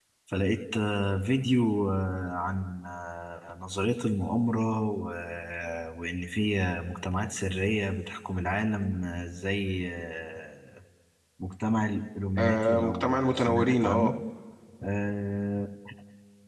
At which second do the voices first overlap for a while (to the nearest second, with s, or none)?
12 s